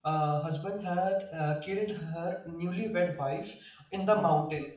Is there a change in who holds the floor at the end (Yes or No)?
No